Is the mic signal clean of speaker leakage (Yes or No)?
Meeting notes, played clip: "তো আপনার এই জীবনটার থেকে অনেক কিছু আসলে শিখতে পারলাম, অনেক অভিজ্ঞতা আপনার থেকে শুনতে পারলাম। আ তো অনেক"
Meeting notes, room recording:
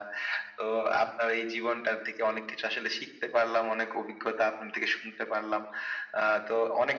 No